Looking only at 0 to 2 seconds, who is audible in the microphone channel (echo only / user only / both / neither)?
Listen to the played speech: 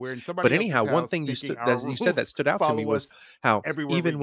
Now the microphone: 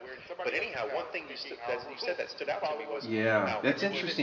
echo only